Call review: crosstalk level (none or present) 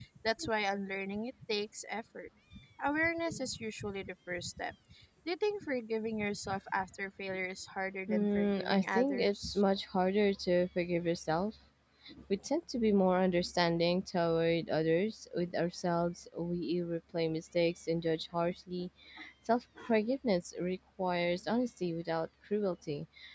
present